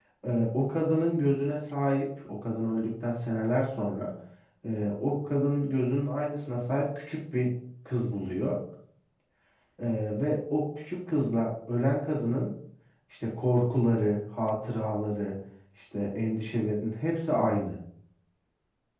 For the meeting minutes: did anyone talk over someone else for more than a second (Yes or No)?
No